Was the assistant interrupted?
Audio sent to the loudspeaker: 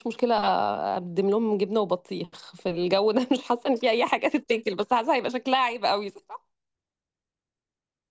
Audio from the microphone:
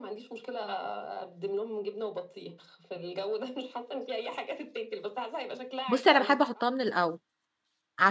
Yes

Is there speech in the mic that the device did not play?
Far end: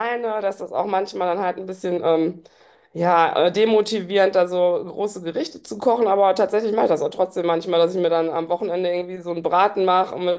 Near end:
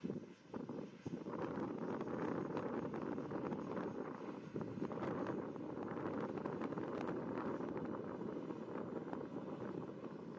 No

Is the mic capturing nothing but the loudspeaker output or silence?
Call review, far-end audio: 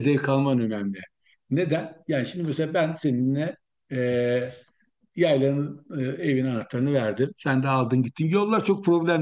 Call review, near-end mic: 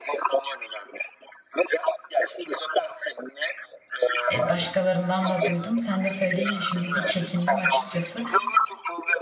No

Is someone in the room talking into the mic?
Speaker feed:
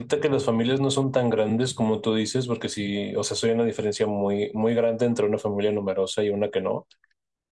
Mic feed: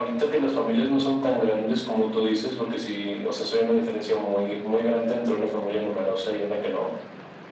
No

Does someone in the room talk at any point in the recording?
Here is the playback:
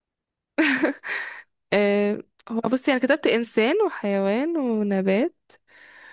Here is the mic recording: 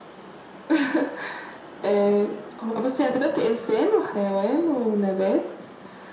No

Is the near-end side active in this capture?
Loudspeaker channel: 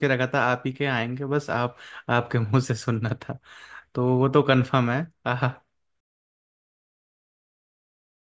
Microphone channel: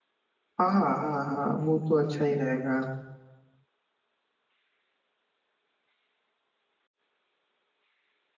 Yes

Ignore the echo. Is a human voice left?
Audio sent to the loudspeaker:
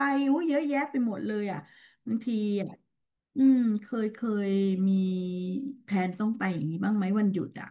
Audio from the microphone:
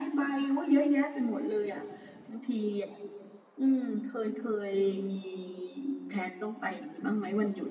No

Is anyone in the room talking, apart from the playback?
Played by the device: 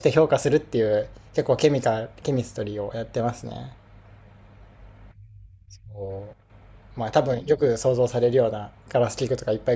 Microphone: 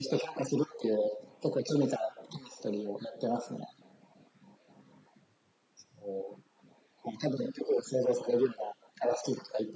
No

